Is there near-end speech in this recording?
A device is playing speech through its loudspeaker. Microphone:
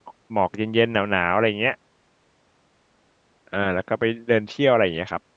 Yes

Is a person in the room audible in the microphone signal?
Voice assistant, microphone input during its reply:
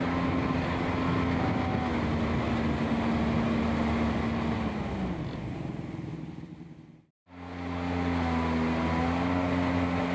No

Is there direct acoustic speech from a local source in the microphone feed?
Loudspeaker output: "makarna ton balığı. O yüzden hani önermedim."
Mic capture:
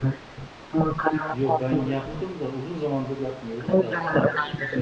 Yes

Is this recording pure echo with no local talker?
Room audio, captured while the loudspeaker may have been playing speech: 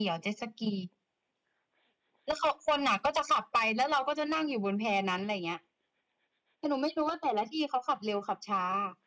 Yes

